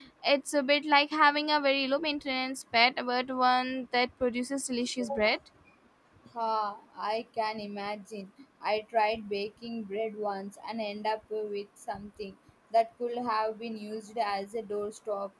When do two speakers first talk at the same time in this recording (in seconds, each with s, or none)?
none